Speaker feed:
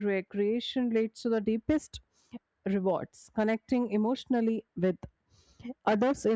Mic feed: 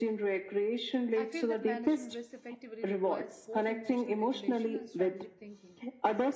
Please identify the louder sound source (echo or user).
echo